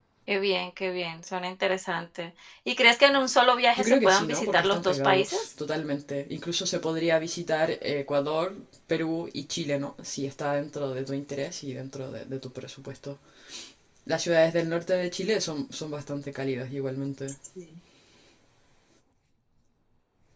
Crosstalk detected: Yes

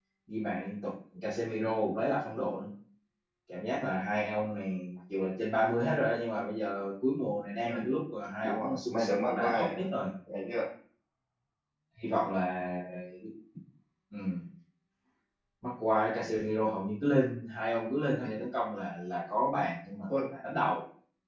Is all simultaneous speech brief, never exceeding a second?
No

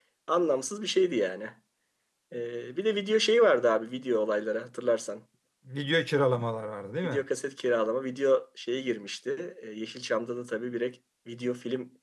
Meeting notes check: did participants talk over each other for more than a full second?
No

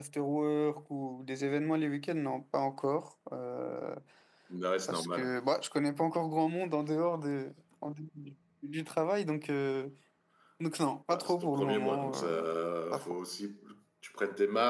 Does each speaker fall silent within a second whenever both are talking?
No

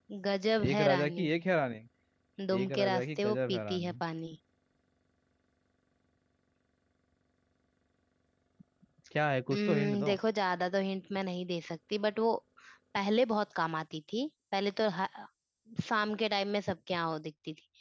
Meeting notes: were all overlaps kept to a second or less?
No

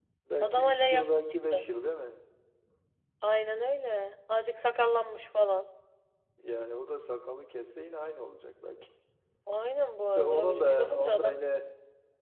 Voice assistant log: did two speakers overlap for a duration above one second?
Yes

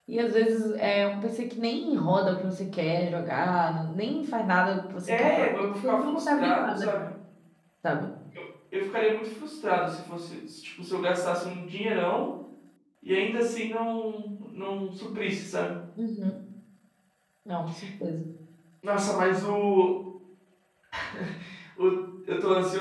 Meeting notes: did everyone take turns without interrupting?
No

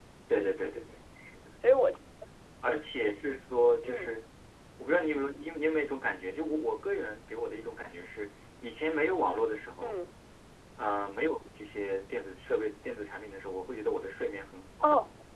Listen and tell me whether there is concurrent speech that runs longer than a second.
No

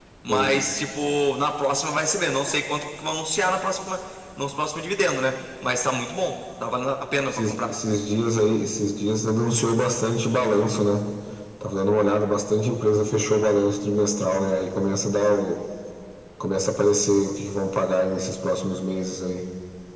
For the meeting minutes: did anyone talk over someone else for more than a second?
No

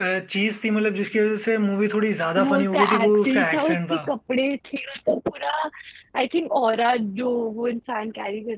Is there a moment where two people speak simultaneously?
Yes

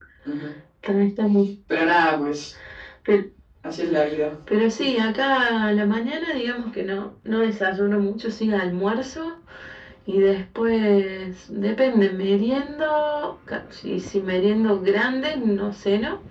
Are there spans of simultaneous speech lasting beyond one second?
No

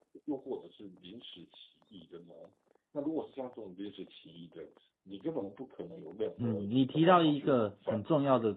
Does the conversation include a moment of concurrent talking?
Yes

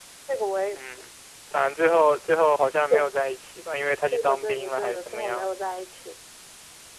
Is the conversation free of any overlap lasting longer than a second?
No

